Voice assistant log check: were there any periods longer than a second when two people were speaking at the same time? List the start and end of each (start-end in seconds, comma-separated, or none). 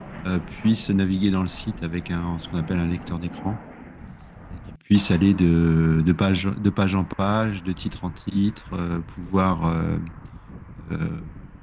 none